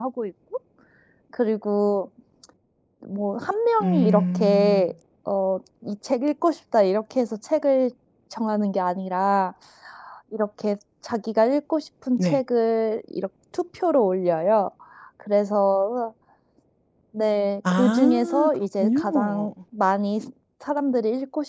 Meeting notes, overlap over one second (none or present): present